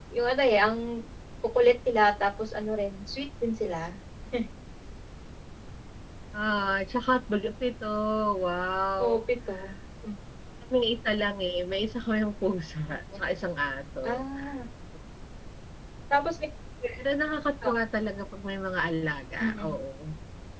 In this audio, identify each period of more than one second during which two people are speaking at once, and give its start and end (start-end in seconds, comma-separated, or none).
none